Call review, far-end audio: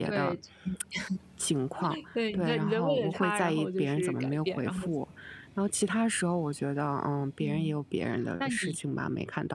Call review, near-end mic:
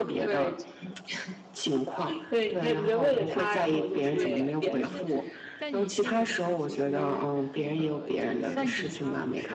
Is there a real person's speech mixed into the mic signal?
Yes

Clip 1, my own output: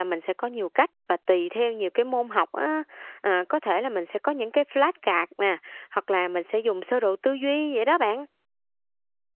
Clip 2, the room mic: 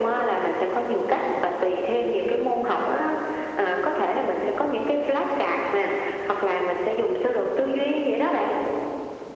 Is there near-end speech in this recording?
No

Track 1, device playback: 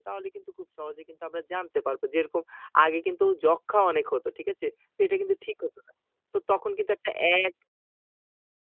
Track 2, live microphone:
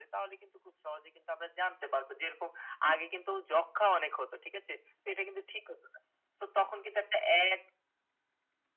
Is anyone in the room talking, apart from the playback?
No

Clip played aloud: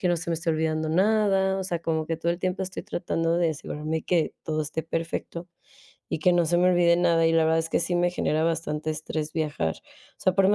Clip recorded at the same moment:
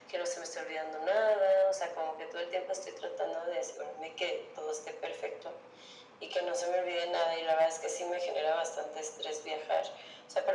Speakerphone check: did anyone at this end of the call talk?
No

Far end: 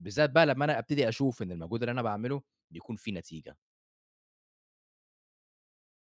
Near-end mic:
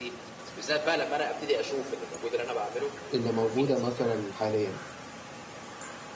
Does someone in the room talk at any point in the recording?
Yes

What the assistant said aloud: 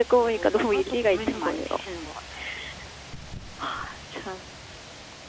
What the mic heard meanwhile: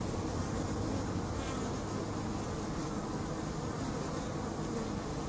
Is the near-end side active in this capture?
No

